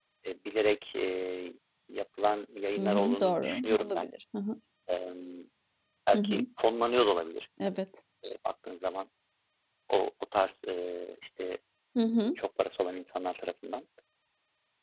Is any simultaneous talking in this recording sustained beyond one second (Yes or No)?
Yes